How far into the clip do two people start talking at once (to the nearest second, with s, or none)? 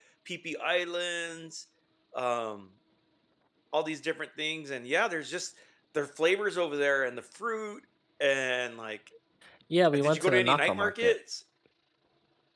10 s